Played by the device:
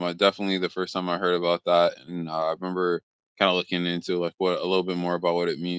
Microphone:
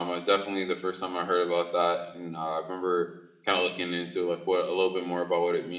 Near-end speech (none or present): none